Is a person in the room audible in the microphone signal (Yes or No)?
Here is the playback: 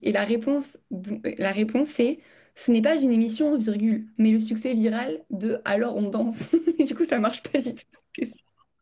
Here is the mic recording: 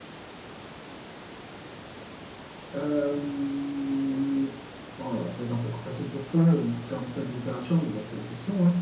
Yes